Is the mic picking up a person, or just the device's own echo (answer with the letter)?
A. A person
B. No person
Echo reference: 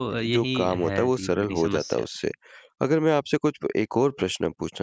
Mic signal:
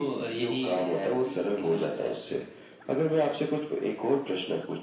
B